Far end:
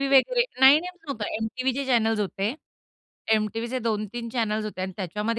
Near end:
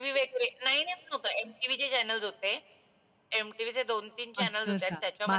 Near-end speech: present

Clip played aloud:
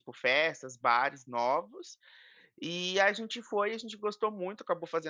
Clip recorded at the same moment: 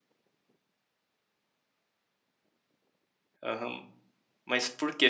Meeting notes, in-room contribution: present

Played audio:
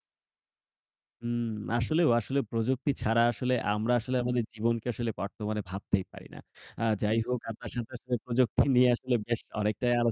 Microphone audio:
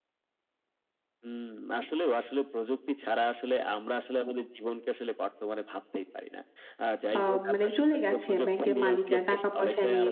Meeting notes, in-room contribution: present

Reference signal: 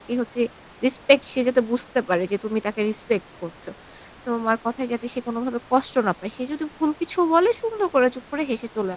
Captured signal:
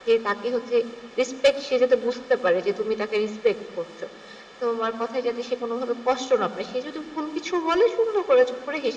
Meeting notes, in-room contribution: none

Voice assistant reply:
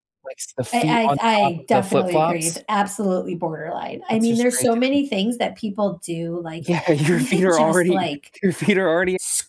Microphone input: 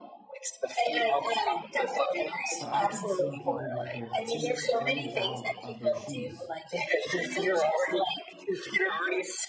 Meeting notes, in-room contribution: present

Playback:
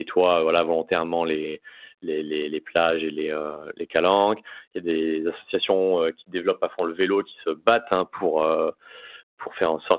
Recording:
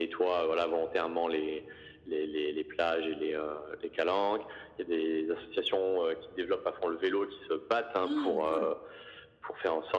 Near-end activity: present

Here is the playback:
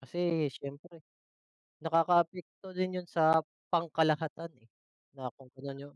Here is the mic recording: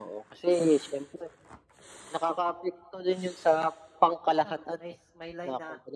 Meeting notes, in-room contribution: present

